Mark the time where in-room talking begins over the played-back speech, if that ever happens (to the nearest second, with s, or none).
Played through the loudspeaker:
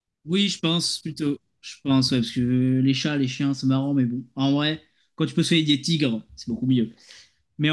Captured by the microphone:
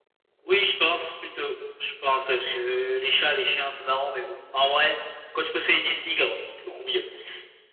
none